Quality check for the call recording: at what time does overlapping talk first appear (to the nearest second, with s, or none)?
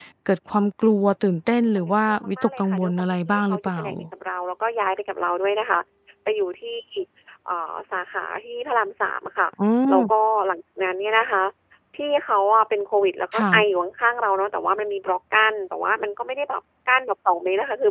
2 s